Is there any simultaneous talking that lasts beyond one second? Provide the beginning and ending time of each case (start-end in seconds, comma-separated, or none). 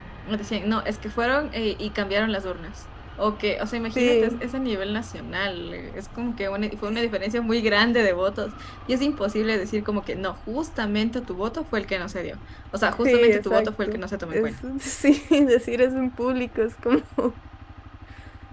13.0-14.5